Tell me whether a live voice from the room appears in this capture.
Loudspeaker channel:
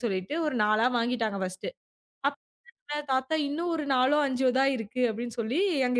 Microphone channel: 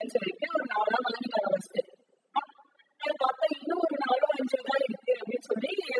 No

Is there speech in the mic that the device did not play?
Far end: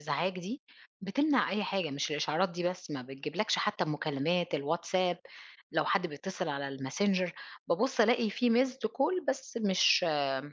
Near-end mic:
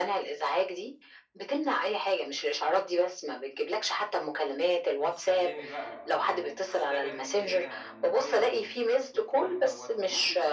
Yes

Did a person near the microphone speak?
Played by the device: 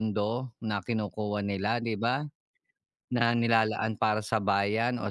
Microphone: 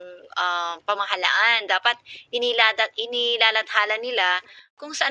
Yes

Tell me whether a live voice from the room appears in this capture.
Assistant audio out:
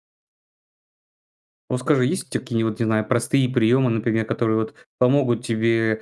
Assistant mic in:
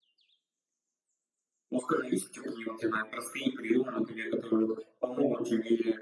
No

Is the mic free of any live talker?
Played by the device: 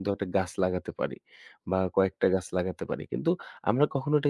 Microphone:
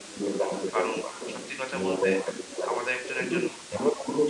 No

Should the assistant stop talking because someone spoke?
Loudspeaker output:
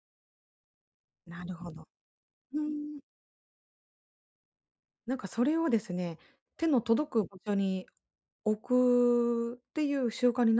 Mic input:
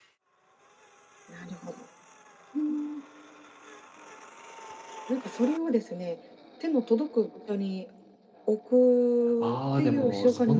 Yes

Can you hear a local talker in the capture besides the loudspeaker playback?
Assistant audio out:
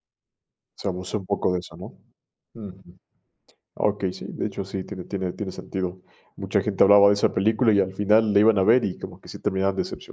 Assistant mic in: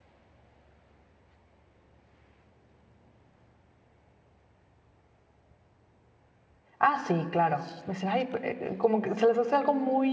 Yes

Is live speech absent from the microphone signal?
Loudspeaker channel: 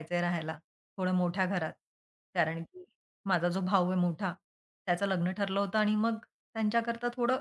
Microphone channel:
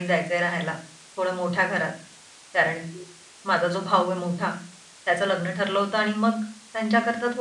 Yes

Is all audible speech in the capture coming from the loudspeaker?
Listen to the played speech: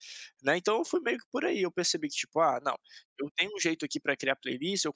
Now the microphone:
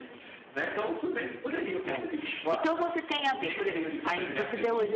No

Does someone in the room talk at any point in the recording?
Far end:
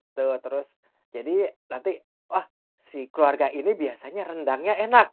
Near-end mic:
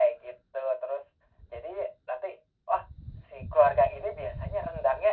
No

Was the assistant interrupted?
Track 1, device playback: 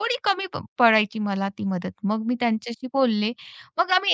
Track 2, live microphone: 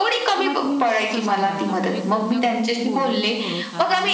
Yes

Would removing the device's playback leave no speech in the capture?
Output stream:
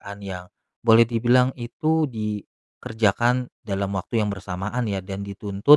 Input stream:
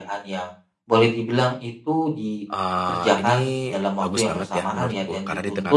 No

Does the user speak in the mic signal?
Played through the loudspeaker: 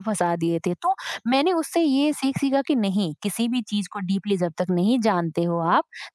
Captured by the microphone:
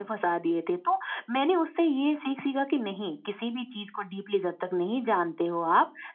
No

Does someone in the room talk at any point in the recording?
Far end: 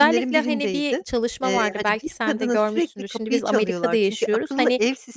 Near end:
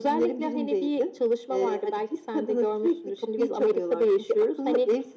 No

